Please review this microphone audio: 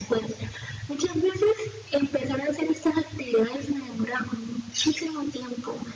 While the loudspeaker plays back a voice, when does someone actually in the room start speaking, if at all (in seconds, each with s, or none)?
none